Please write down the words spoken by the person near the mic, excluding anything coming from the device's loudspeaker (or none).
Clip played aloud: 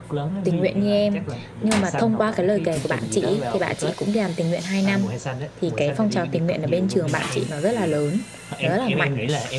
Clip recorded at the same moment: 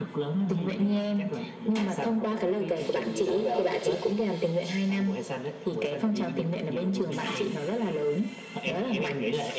none